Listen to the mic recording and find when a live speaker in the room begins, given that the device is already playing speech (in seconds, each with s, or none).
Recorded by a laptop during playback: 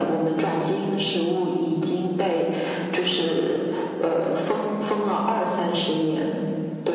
none